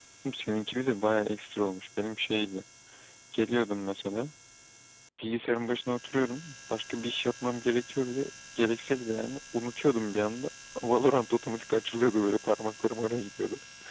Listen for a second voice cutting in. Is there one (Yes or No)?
No